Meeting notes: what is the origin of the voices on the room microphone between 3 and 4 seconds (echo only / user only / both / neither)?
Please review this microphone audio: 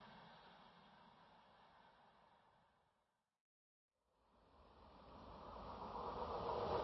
neither